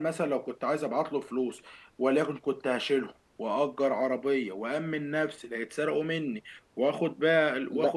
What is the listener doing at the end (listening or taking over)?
taking over